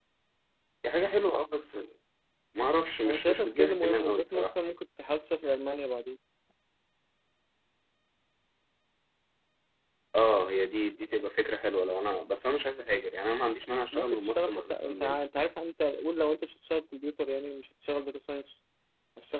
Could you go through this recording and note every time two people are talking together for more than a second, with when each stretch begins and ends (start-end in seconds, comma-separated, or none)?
3.1-4.5, 13.9-15.2